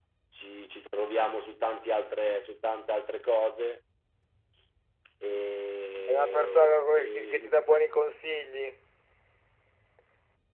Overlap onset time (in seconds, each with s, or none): 6.1 s